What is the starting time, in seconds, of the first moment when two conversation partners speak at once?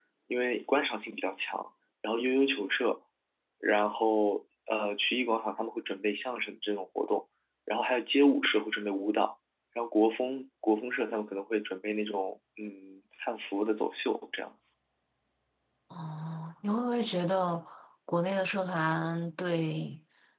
none

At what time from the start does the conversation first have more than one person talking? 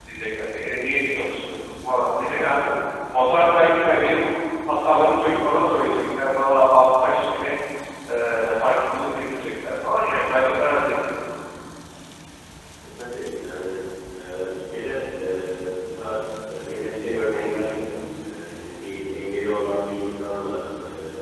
none

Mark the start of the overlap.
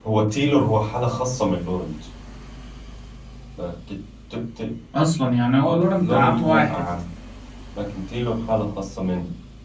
5.6 s

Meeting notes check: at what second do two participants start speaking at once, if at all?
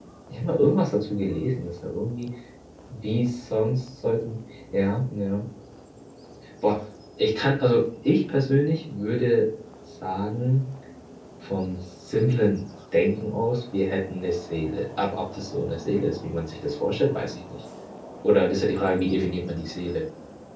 none

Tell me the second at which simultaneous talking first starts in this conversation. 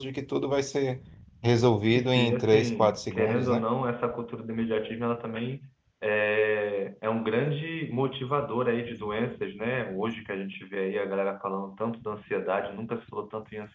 1.9 s

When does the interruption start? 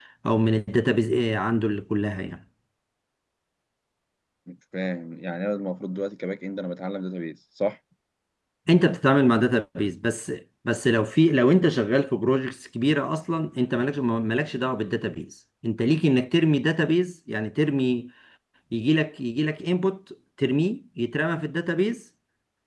none

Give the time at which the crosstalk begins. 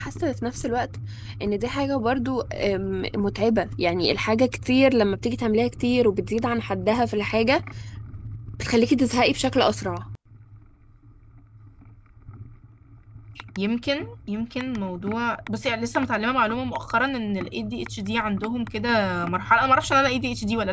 none

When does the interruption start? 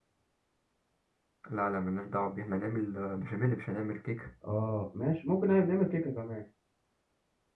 none

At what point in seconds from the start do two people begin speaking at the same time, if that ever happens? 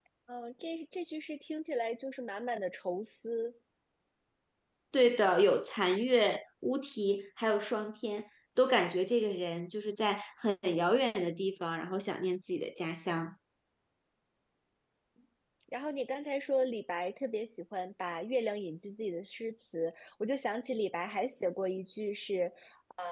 none

